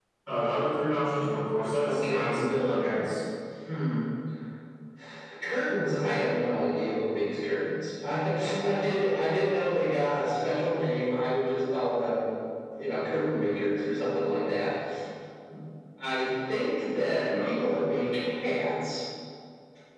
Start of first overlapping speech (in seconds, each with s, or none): 1.8 s